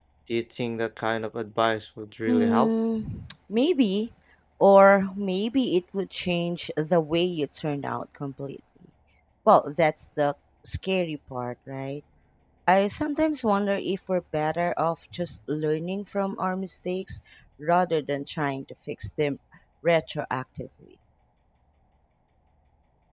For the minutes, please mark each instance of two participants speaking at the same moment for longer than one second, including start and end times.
none

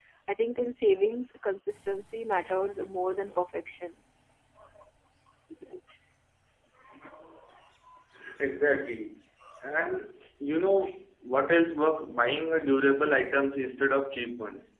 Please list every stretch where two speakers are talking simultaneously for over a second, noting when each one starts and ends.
none

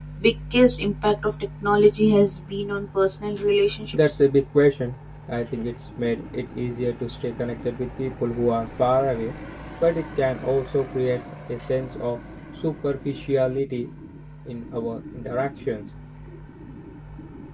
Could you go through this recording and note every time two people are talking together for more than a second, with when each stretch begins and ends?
none

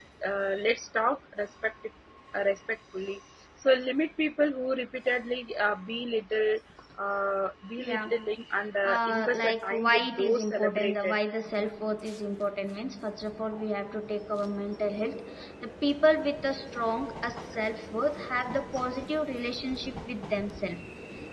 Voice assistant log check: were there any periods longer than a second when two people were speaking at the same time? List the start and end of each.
8.8-11.2

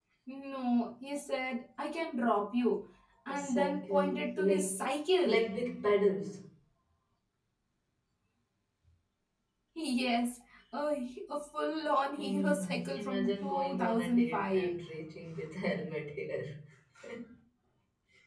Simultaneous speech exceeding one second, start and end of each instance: 3.3-4.8, 12.2-14.7

